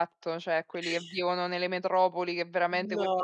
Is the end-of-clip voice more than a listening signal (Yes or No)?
No